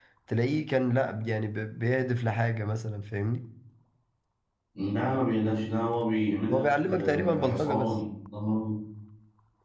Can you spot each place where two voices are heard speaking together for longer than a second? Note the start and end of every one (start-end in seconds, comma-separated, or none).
6.5-7.9